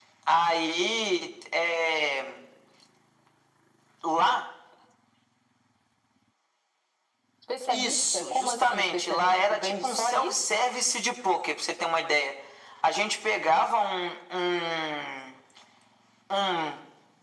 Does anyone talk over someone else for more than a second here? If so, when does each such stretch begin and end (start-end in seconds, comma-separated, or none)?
7.7-10.4